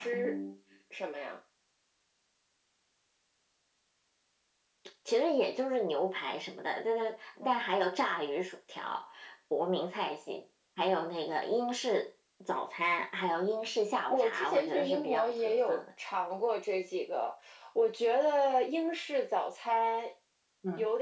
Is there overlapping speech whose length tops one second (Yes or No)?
Yes